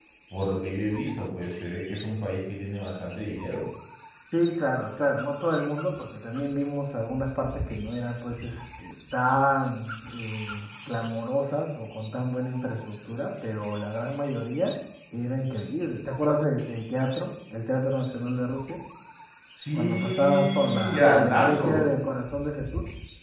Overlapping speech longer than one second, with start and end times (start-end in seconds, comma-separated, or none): 19.7-21.8